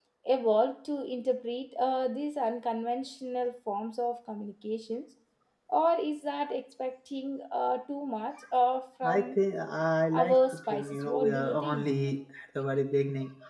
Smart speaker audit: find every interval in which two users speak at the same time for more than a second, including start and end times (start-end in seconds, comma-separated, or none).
10.1-11.9